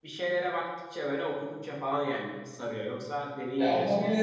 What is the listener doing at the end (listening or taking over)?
taking over